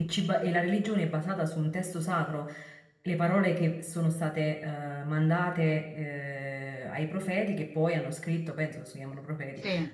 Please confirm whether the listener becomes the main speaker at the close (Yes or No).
No